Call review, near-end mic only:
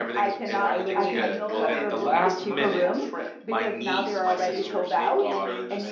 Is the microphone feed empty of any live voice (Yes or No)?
No